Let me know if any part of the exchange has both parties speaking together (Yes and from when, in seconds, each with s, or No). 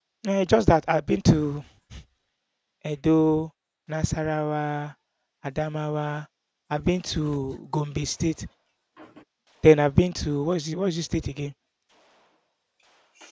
No